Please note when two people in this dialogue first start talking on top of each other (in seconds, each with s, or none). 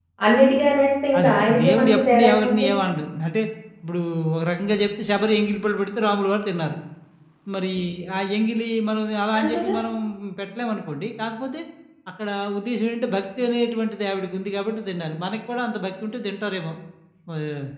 1.2 s